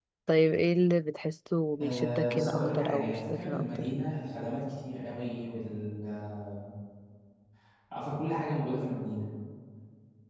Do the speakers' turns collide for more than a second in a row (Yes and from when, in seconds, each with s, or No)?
Yes, from 1.7 s